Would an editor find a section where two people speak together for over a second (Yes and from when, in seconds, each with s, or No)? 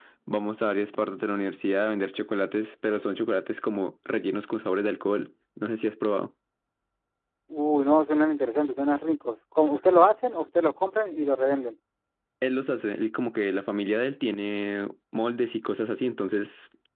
No